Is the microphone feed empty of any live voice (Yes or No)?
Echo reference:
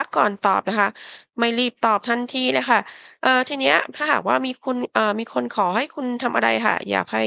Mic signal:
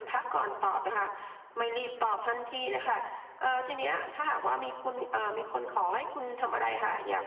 Yes